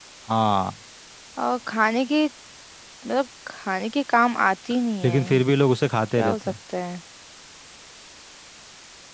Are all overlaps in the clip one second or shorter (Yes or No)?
Yes